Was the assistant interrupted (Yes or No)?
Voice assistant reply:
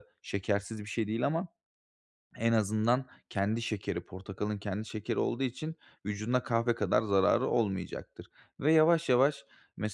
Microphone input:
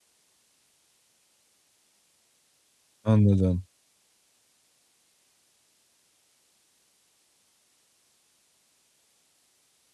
Yes